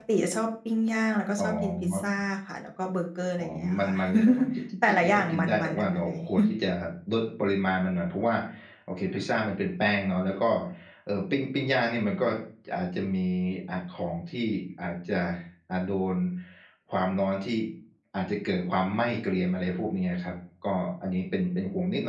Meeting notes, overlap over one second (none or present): present